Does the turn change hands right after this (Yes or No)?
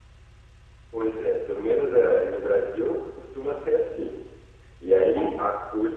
No